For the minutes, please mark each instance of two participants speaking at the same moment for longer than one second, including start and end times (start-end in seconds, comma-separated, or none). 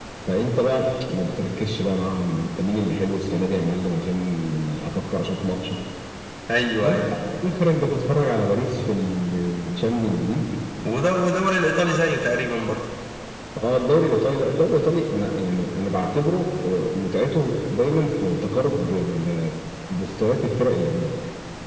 none